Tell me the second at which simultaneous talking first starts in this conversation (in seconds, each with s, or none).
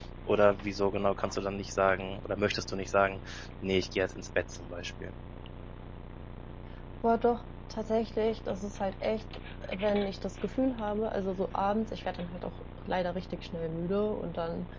none